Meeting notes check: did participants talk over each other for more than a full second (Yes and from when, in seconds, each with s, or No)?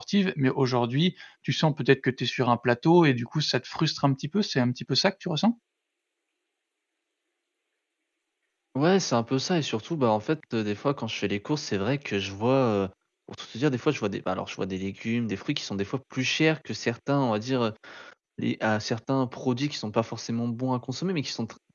No